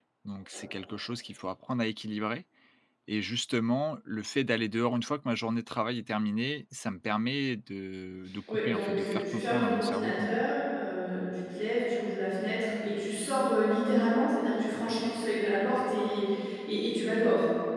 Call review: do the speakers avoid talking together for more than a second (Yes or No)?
No